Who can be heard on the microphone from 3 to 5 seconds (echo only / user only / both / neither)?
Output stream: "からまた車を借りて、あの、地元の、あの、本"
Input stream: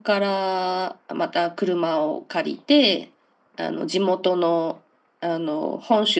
echo only